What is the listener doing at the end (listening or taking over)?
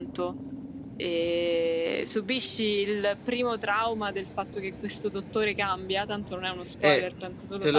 taking over